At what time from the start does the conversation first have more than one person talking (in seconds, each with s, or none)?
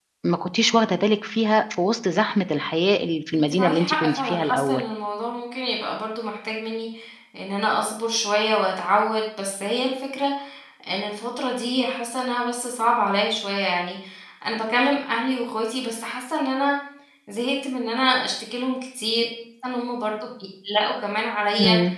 3.3 s